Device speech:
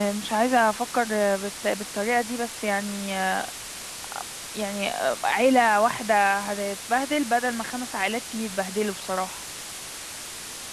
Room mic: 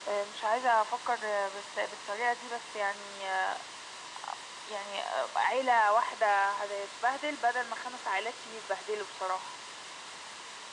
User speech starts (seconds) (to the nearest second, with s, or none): none